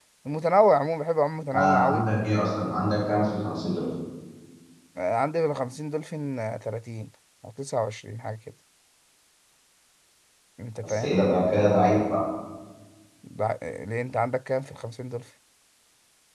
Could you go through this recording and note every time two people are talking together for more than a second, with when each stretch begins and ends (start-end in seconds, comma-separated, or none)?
none